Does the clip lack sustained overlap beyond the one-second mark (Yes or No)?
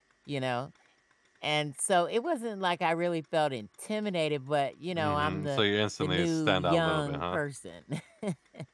No